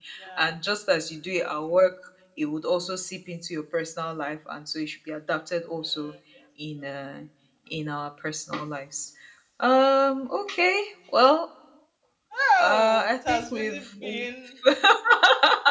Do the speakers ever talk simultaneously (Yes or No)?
Yes